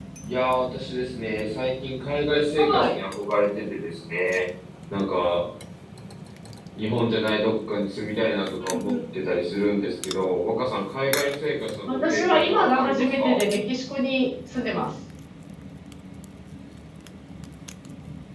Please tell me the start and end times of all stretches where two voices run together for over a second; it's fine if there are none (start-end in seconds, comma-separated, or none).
11.9-13.4